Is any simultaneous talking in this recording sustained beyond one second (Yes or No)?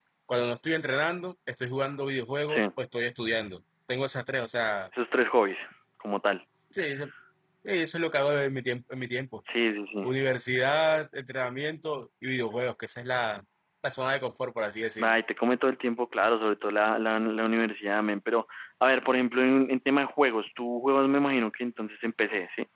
No